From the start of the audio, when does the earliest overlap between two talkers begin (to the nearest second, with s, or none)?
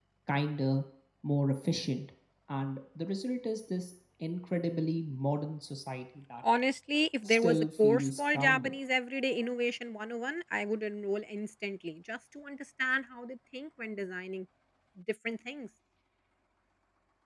7 s